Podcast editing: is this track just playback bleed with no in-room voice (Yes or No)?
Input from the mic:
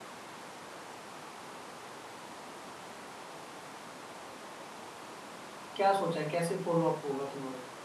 No